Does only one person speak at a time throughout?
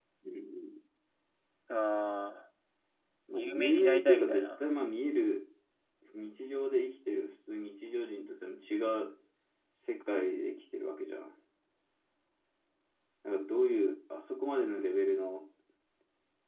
No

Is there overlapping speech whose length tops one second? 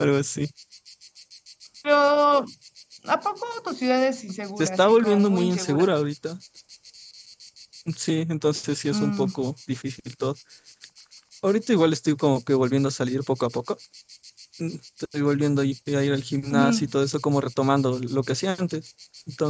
Yes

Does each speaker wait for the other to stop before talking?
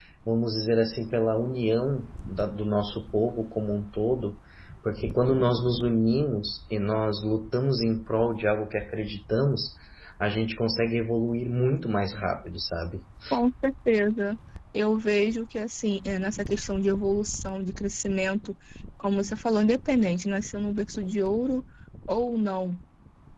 Yes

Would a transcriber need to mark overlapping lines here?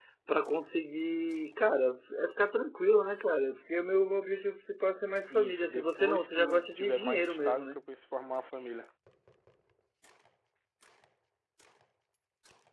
Yes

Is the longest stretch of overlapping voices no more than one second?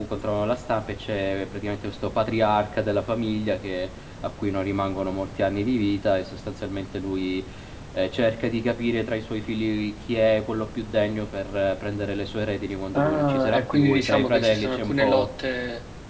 No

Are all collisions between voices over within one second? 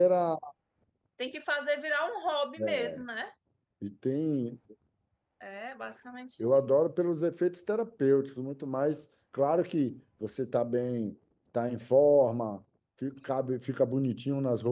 Yes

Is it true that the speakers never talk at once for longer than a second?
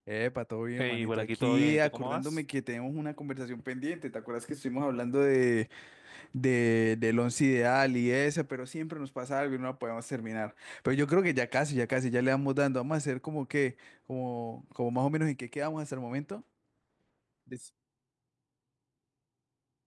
No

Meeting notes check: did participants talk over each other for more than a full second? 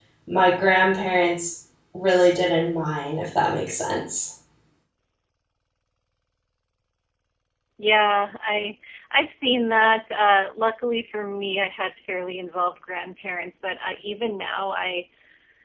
No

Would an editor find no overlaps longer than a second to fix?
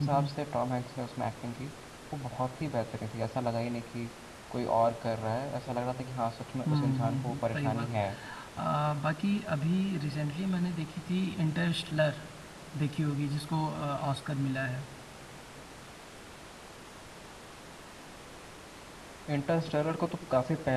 No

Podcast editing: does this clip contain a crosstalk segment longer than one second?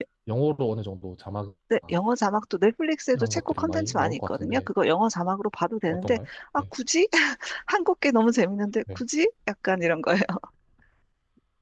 Yes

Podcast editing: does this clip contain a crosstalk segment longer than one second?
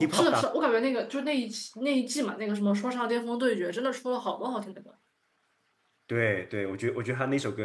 No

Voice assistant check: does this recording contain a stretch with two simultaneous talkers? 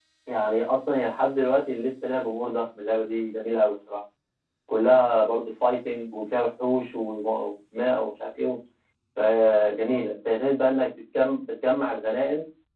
No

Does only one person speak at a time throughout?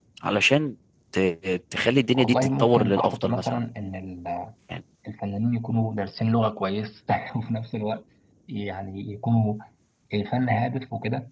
No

